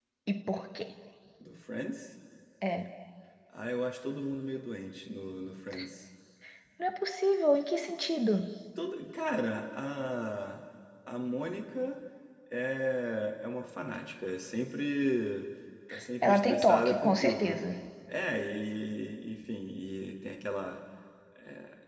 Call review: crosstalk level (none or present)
present